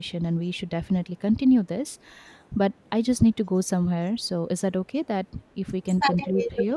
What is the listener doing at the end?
taking over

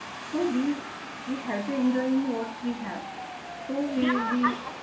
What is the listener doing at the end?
taking over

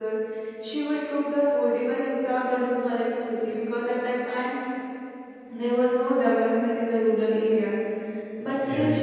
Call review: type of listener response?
listening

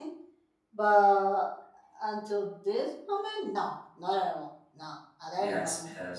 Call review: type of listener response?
taking over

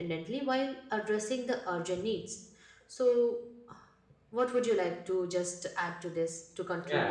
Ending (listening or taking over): taking over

